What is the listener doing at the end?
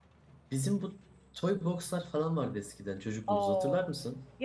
taking over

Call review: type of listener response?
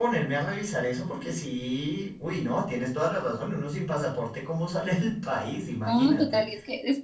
taking over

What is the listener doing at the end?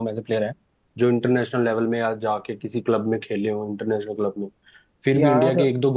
listening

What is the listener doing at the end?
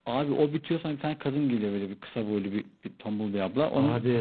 taking over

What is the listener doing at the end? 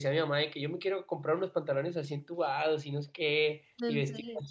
listening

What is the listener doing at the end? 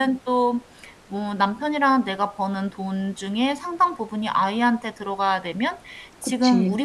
listening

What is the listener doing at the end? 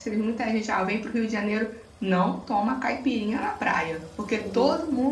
listening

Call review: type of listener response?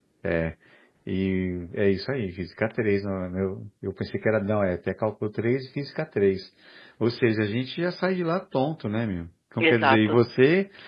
listening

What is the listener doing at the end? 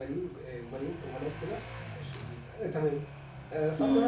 listening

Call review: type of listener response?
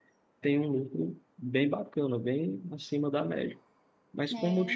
listening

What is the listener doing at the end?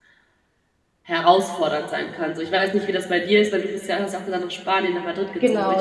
taking over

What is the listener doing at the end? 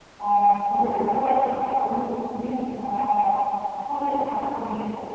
listening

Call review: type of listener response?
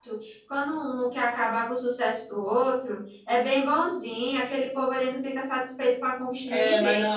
taking over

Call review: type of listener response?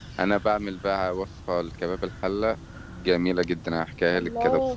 taking over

